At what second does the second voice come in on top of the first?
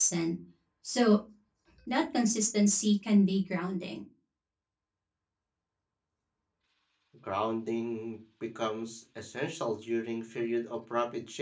none

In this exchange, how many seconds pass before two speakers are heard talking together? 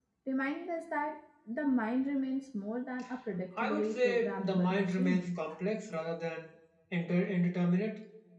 3.6 s

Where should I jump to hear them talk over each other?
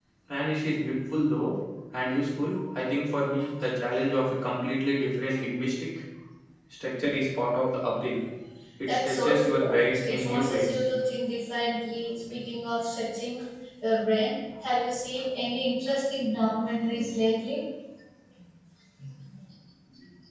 8.9 s

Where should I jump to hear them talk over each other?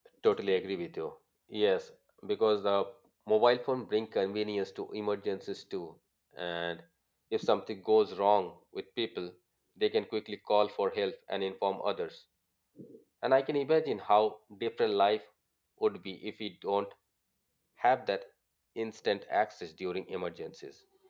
none

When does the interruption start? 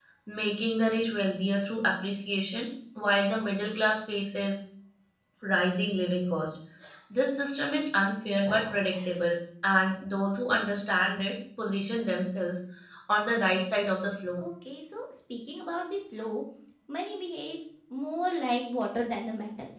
none

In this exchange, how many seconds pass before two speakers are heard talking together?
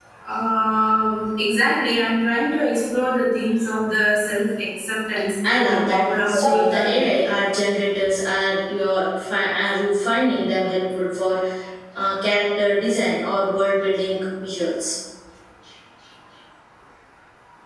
5.4 s

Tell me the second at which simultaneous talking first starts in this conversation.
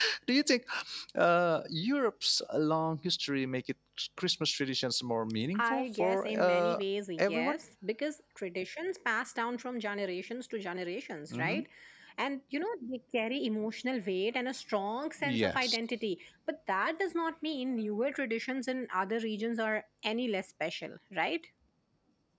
5.6 s

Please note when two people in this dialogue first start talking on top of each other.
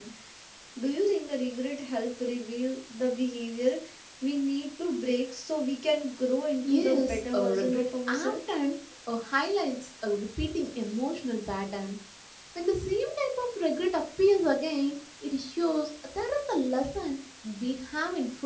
6.6 s

